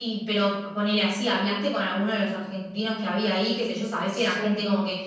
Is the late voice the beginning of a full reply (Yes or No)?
No